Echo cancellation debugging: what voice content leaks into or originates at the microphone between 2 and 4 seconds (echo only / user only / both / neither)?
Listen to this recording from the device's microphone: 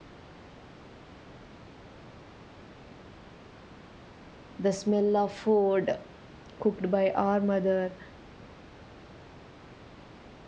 neither